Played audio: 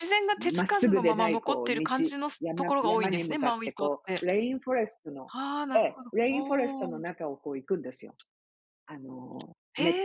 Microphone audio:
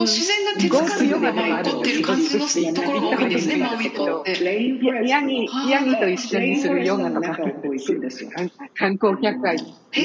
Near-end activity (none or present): present